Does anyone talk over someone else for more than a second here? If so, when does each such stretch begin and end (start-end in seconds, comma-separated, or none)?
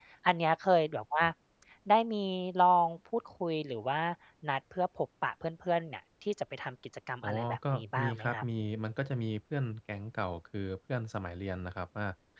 7.2-8.4